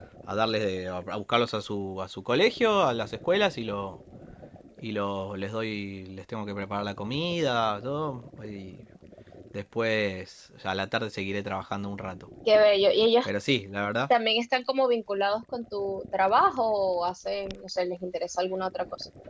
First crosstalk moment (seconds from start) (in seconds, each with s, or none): none